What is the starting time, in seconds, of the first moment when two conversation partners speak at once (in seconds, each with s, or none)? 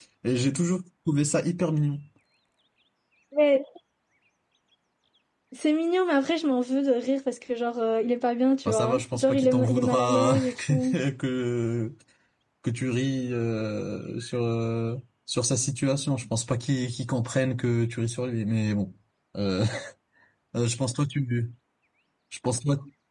8.7 s